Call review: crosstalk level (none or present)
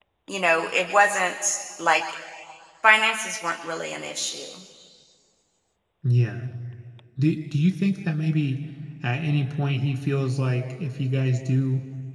none